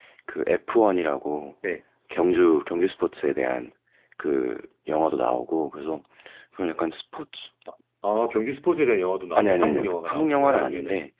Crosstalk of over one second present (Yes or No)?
Yes